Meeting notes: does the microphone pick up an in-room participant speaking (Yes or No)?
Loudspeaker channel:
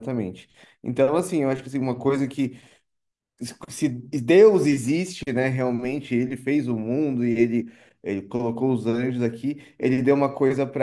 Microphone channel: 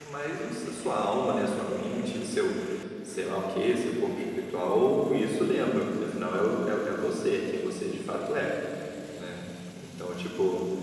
Yes